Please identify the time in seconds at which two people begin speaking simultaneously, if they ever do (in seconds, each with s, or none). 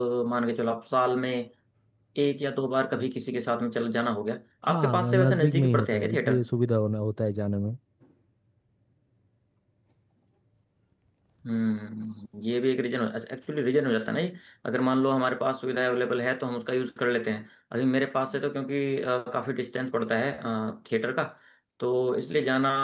4.7 s